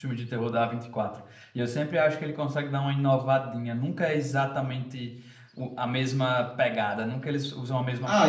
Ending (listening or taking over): taking over